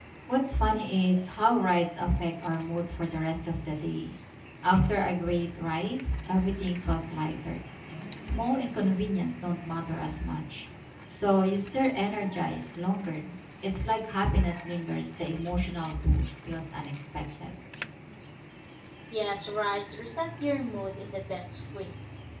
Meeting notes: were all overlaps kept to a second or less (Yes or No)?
Yes